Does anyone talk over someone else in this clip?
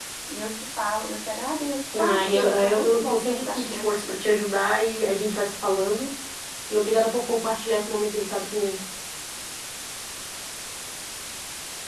Yes, from 1.9 s

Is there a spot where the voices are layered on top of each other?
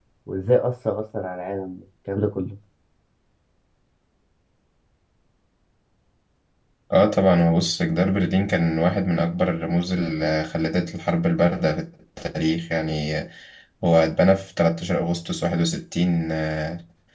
No

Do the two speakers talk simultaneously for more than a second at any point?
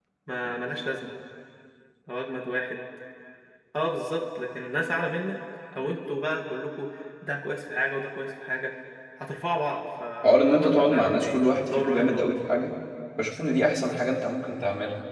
Yes, from 10.2 s

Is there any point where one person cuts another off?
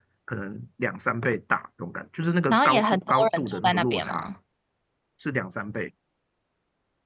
Yes, from 2.5 s

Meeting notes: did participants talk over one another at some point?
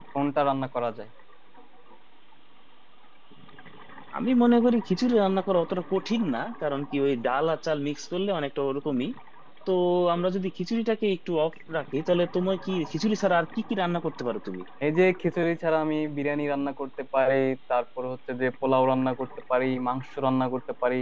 No

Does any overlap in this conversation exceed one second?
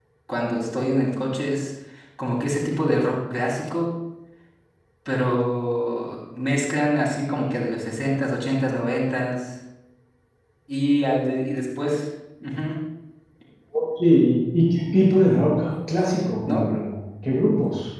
No

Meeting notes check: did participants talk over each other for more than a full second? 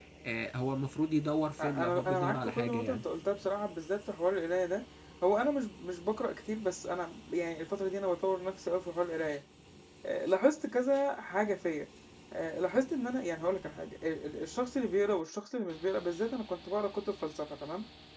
Yes, from 1.6 s

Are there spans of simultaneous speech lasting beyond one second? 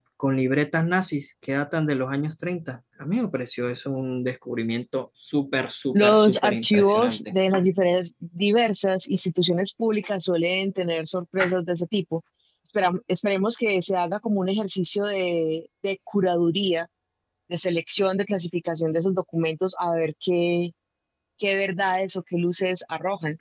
Yes, from 5.9 s

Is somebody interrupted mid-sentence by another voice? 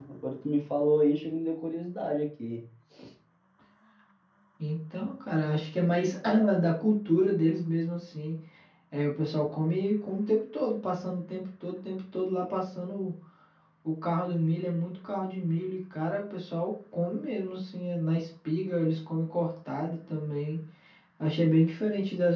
No

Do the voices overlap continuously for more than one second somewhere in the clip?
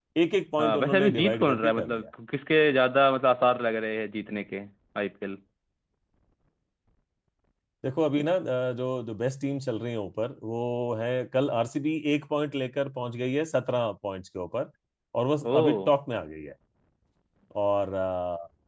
Yes, from 0.6 s

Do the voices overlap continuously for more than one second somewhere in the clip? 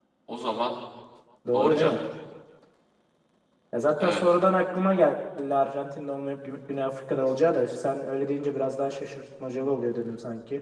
No

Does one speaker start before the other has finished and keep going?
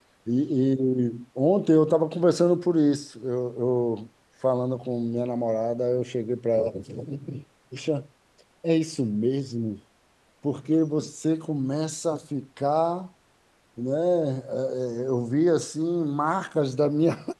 No

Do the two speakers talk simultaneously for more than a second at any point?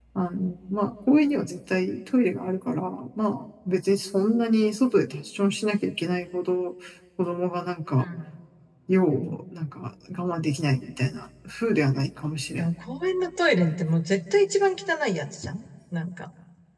No

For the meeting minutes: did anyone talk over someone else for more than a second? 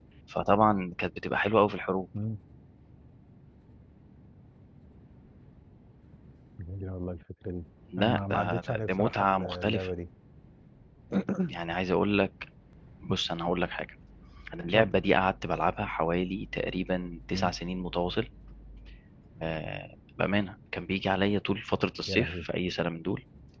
Yes, from 8.0 s

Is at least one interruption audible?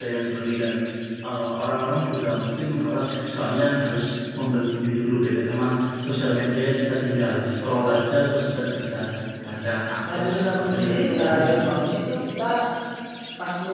Yes, from 10.0 s

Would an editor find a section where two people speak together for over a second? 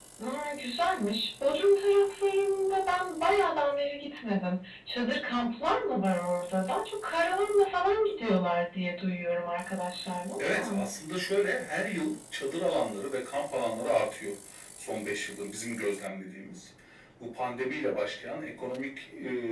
No

